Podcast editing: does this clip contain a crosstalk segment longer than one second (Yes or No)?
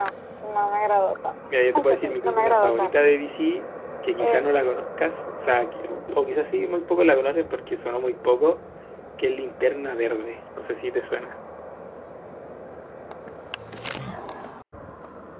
Yes